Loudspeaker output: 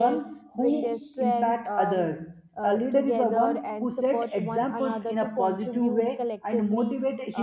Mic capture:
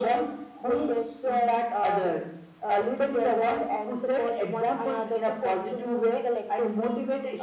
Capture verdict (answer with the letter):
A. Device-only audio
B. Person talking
A